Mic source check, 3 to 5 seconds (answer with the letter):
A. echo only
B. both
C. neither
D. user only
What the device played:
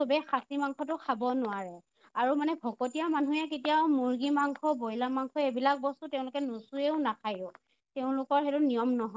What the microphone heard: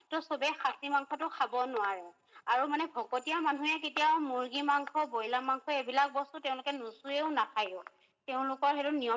A